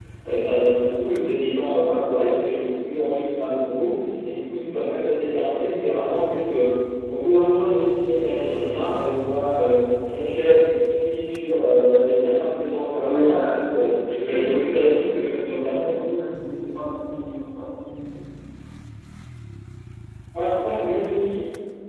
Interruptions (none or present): present